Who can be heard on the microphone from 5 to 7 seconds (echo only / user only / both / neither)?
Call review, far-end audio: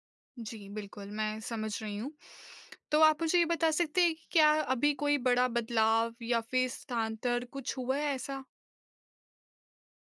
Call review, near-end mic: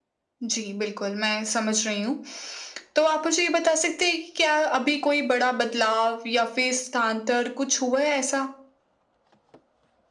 echo only